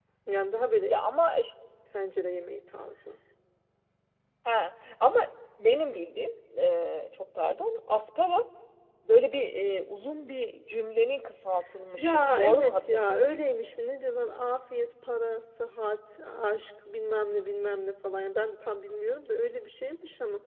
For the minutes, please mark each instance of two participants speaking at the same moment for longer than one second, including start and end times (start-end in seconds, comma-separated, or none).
12.0-13.2